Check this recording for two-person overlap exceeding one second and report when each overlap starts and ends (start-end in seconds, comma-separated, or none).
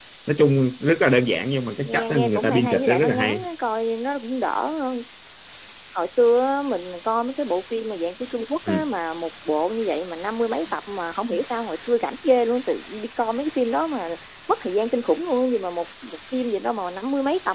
1.8-3.4